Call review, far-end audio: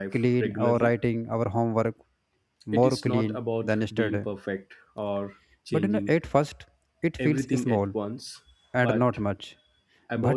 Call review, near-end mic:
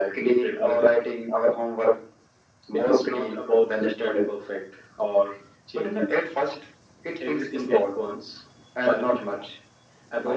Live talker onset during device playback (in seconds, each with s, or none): none